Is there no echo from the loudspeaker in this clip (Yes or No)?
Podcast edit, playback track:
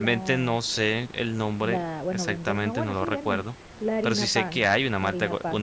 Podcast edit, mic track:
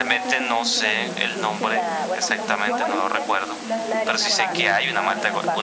No